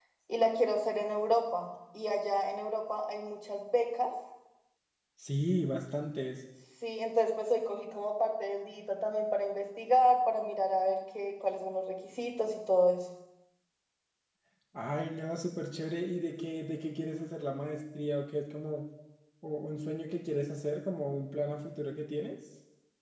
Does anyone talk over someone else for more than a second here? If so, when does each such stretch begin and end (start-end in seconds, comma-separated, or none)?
none